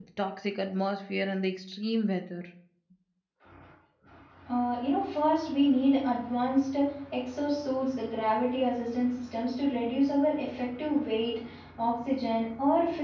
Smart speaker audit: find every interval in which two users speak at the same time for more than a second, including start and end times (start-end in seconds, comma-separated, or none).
none